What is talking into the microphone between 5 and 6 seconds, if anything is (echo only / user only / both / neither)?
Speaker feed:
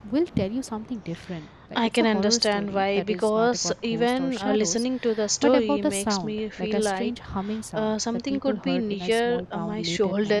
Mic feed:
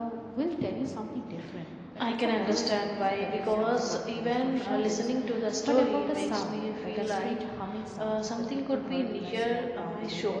both